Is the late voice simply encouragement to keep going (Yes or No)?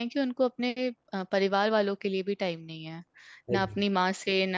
Yes